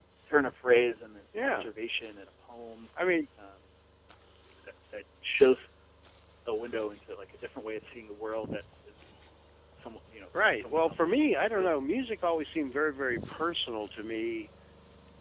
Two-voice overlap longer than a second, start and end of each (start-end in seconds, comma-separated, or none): 10.4-11.7